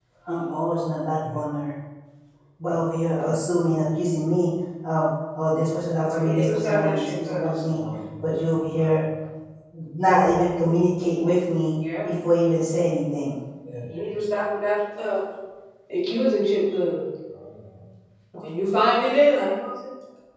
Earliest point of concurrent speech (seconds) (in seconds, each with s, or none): 6.1 s